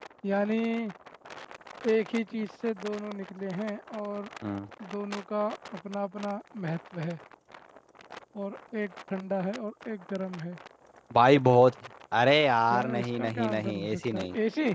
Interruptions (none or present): present